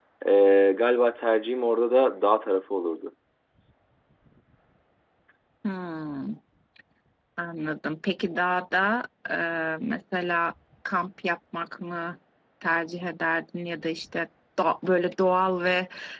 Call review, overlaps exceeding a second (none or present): none